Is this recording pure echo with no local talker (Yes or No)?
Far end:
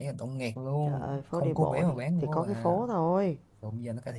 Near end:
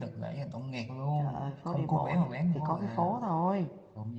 Yes